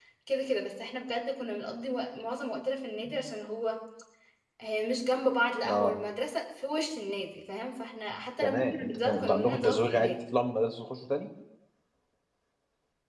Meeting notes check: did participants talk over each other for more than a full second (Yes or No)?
Yes